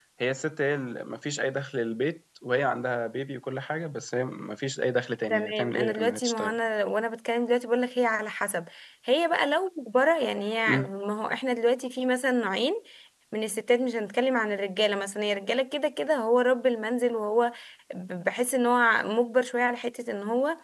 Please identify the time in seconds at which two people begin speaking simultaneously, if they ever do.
5.3 s

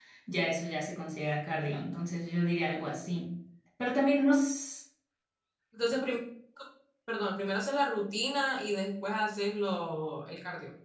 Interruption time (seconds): none

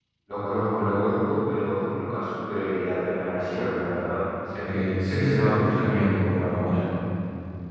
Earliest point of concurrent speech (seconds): 4.7 s

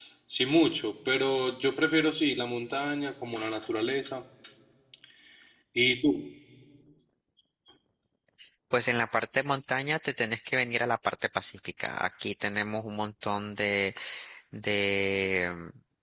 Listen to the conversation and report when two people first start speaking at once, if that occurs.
none

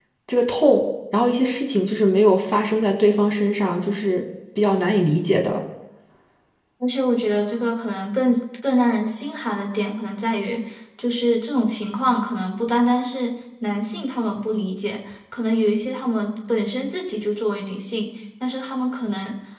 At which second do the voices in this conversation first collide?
none

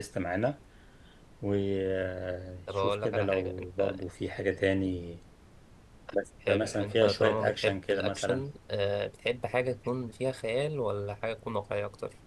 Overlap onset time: 2.7 s

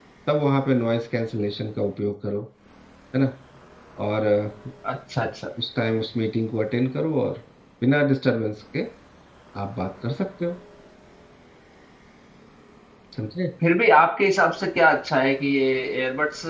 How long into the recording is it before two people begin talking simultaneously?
none

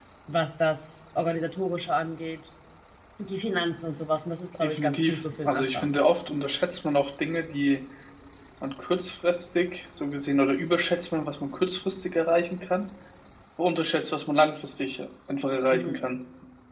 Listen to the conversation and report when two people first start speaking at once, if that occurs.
4.6 s

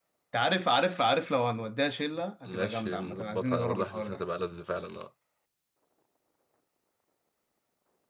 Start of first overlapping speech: 2.5 s

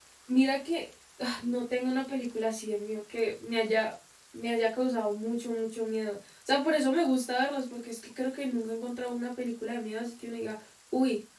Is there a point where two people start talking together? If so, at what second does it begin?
none

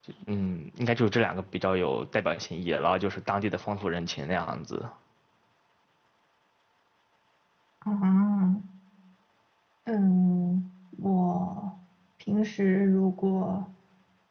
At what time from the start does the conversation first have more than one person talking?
none

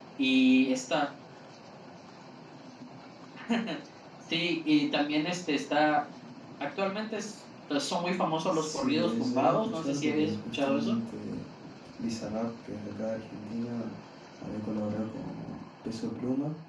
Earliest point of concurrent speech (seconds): 8.5 s

